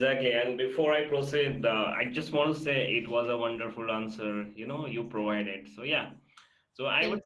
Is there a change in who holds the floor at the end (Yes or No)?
No